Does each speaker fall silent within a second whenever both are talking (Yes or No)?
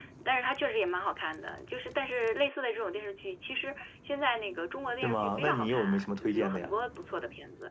No